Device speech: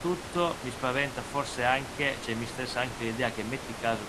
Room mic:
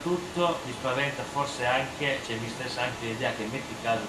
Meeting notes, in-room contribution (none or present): none